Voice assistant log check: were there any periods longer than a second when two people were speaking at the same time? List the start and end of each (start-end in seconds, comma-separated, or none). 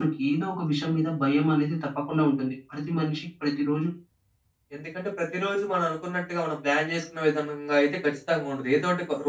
none